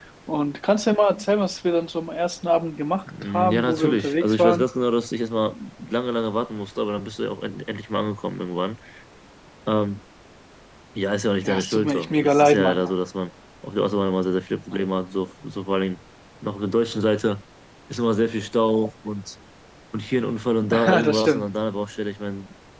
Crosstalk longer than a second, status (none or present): present